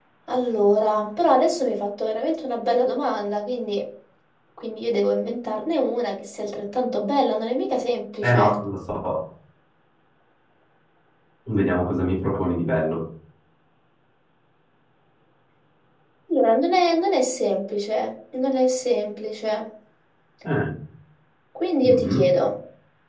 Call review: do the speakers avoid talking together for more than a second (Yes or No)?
Yes